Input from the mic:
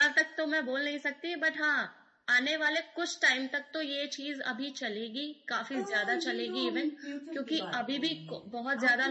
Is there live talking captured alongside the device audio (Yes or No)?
Yes